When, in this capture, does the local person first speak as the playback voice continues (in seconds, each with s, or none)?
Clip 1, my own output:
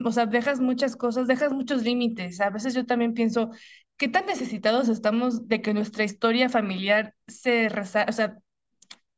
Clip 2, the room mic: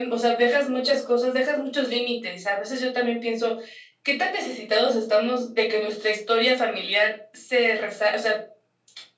none